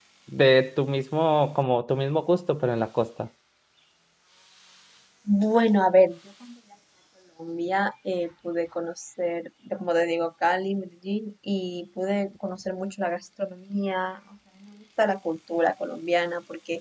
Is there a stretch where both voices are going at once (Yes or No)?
No